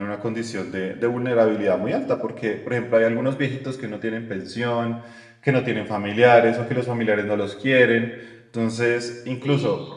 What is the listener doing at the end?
taking over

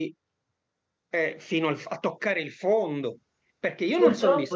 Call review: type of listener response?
listening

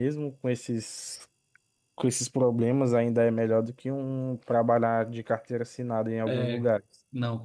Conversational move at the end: taking over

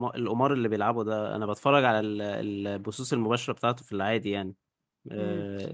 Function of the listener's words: taking over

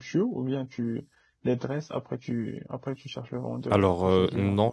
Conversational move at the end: taking over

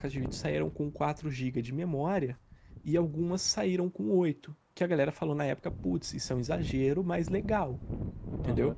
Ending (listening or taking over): taking over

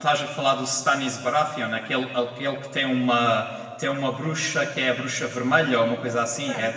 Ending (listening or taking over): taking over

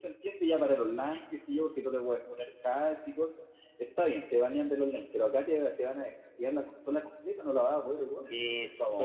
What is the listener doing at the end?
taking over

